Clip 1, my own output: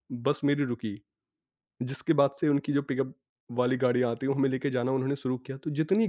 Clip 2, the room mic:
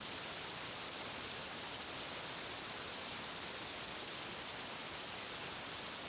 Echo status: none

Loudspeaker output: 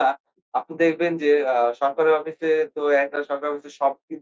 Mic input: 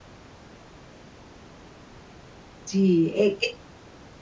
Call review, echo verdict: none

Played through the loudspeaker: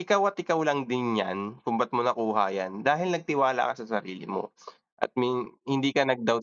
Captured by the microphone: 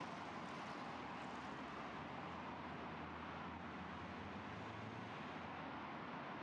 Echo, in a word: none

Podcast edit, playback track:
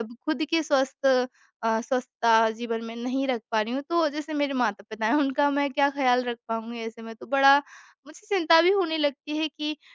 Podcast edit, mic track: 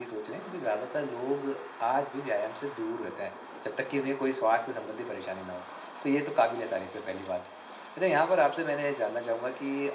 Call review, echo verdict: none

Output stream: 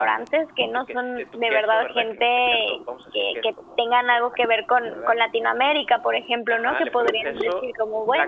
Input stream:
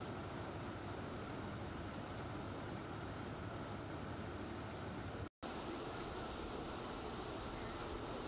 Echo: none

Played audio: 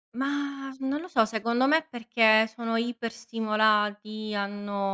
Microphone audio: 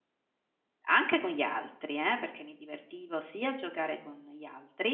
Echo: none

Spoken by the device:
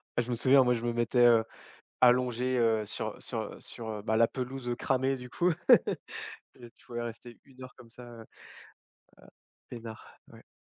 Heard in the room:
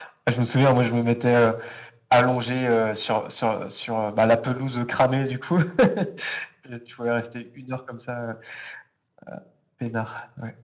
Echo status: present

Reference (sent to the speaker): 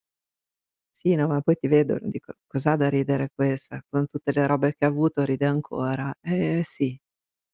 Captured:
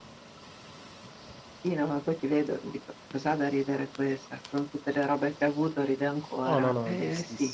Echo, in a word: present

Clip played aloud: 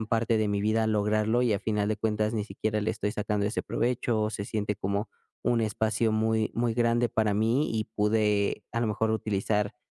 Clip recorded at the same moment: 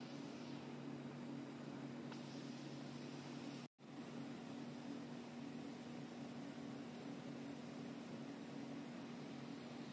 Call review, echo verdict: none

